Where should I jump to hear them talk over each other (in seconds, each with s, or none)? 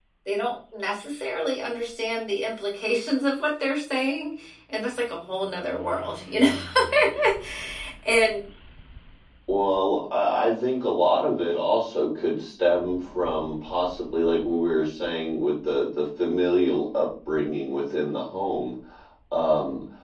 none